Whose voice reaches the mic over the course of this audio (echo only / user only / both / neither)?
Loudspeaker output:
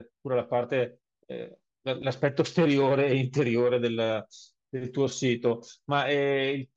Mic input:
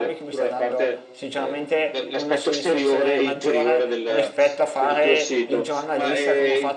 both